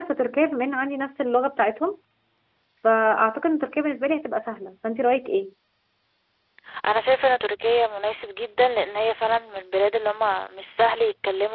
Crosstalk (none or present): none